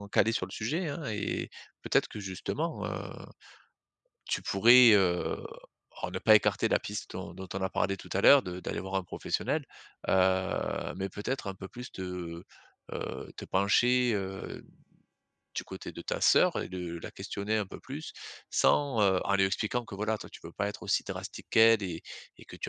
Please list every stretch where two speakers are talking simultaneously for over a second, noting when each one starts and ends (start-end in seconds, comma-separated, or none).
none